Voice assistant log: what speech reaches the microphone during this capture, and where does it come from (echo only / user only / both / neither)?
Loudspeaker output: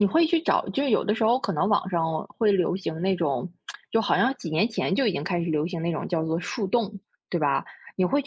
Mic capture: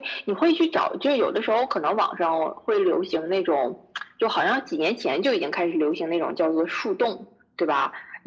echo only